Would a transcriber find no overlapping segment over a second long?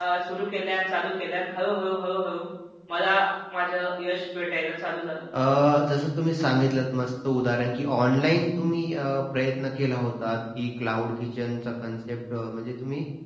Yes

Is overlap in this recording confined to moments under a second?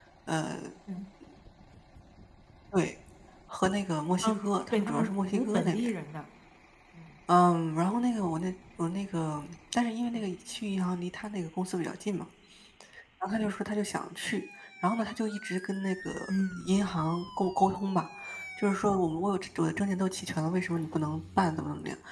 No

